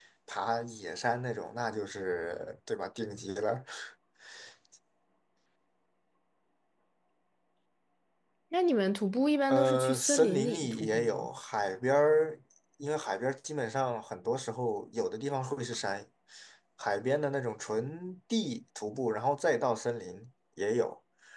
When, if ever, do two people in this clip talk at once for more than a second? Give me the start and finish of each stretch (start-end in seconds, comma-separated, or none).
9.5-11.3